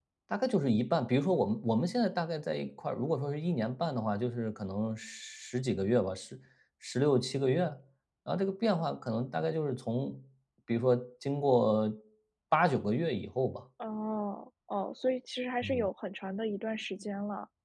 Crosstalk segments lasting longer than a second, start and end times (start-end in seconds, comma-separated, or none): none